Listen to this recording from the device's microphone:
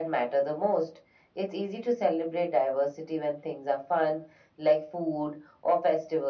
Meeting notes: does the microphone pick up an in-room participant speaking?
No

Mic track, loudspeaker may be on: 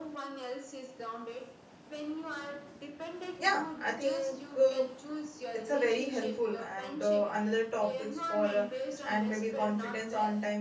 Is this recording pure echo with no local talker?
No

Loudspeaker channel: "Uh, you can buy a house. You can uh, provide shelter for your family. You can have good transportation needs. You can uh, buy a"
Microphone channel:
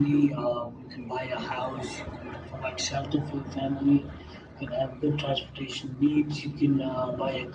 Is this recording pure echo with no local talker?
Yes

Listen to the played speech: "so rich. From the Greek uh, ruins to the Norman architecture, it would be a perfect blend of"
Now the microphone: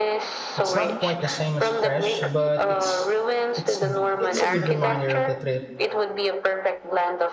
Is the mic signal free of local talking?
No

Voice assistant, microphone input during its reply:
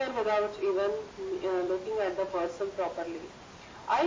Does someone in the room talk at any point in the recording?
No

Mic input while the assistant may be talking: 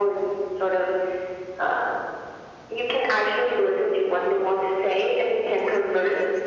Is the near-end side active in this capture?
Yes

